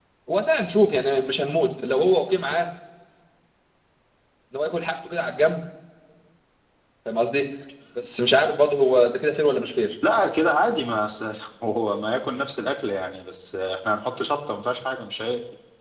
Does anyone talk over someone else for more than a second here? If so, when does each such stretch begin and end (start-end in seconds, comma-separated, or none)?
none